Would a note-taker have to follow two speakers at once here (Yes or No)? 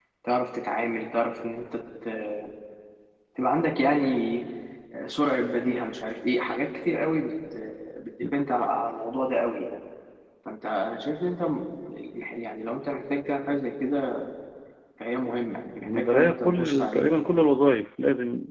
Yes